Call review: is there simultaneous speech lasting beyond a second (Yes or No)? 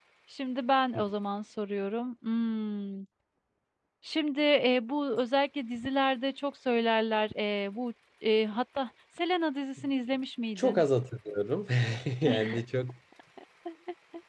No